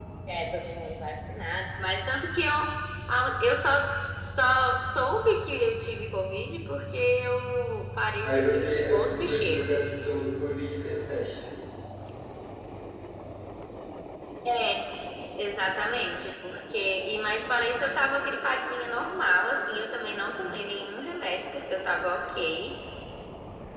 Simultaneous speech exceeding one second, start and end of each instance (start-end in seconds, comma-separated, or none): 8.2-9.7